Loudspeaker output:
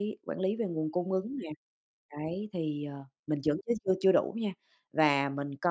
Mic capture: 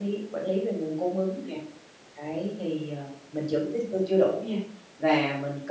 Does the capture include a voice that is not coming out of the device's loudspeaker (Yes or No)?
No